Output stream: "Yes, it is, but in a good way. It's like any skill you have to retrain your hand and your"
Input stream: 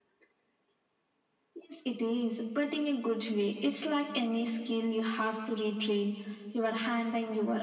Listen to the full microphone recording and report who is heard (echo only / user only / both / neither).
echo only